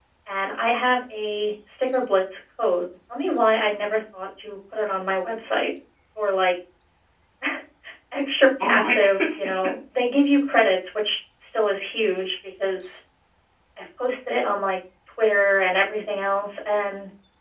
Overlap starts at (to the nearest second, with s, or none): 9 s